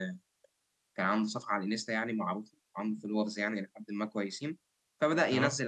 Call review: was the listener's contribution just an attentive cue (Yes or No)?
Yes